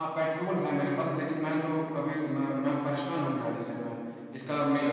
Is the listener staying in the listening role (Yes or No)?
Yes